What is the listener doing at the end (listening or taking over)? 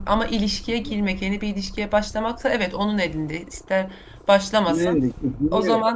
taking over